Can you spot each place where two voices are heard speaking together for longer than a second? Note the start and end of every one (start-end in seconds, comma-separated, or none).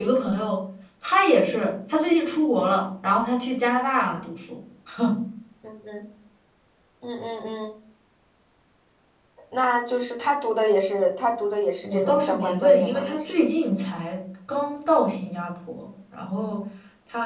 11.8-13.3